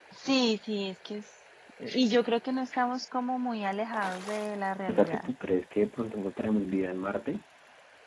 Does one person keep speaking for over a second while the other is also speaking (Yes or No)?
No